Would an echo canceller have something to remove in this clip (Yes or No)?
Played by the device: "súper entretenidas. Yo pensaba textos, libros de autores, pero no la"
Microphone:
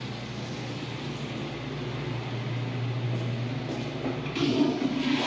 No